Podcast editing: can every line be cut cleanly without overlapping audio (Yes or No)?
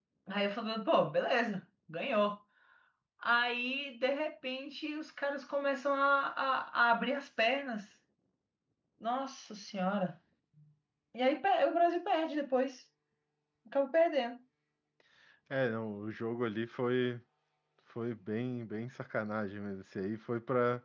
Yes